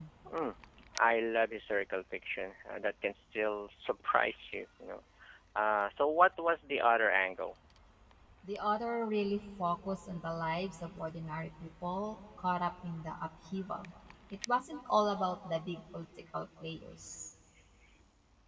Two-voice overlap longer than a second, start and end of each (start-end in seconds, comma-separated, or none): none